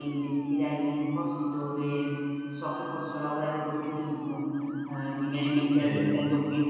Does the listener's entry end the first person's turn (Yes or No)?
No